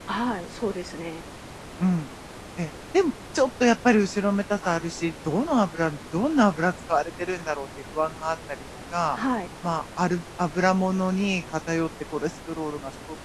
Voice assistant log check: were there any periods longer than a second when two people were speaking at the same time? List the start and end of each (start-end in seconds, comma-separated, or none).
none